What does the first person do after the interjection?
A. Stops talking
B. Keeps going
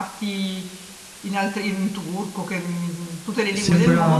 A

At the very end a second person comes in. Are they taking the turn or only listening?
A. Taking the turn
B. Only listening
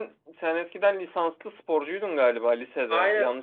A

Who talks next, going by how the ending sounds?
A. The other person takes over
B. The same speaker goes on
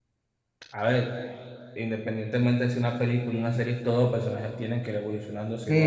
A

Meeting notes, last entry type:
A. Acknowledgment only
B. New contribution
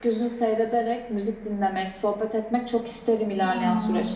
B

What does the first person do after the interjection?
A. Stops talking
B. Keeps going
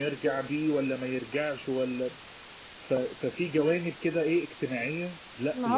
A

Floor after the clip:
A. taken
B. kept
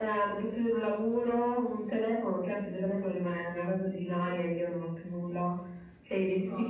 A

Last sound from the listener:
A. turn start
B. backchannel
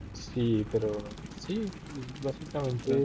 B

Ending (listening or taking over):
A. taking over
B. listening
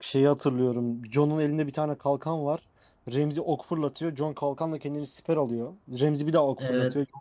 B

